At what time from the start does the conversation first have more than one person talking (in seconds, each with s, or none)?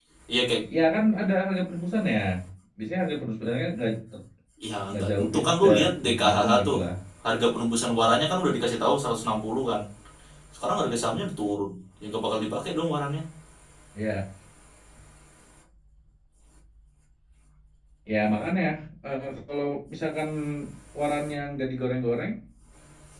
4.9 s